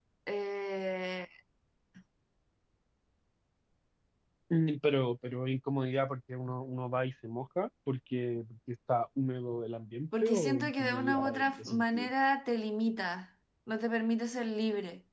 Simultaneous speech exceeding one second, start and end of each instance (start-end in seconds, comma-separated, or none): 10.2-12.1